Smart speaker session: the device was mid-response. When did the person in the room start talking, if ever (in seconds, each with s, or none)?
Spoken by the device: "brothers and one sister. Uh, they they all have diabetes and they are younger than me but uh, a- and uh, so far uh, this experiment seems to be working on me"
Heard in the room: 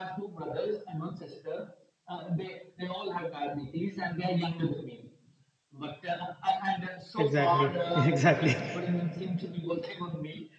7.2 s